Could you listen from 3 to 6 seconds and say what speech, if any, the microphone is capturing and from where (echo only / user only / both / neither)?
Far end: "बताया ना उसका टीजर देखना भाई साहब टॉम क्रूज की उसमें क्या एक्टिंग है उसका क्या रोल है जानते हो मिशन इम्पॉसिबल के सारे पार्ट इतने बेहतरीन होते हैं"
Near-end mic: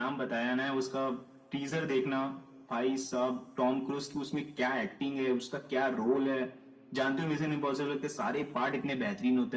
echo only